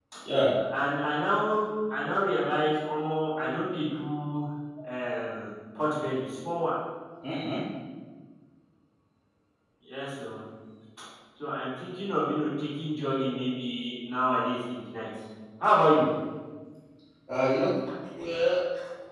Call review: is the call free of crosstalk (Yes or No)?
Yes